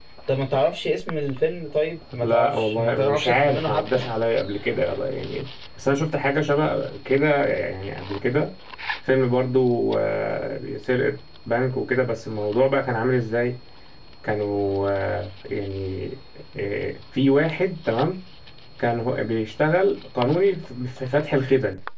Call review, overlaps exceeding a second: present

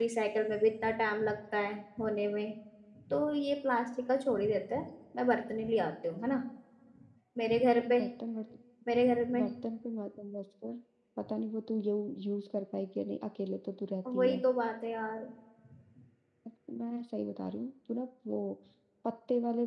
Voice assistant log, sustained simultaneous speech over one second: none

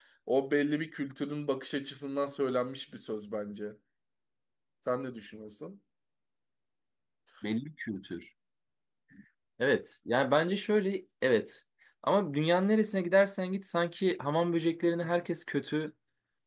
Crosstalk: none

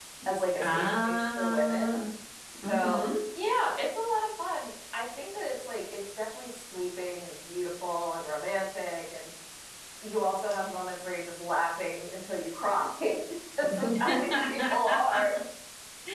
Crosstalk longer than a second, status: present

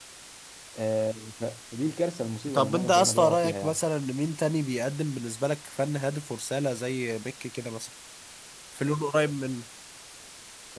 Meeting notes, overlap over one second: present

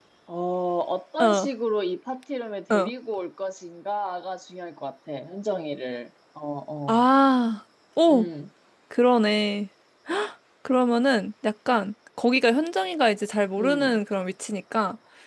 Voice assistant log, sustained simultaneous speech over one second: none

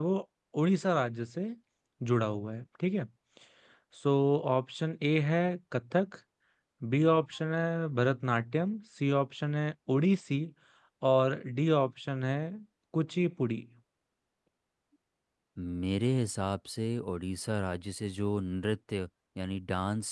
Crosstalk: none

